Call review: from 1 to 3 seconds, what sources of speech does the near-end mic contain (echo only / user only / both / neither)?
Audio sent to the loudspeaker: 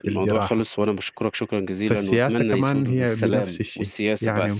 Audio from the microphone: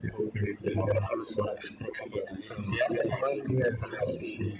echo only